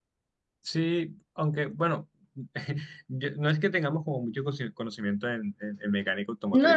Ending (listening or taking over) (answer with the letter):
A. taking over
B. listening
A